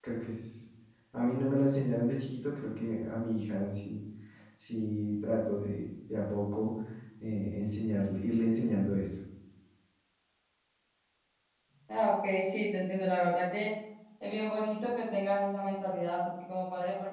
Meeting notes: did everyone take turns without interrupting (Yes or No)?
Yes